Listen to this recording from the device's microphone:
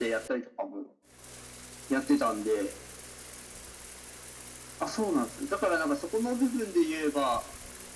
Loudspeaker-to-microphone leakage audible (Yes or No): Yes